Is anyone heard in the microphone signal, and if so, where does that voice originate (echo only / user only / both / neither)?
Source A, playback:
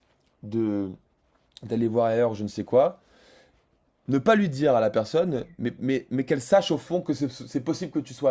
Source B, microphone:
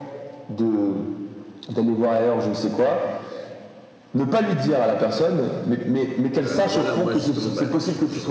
both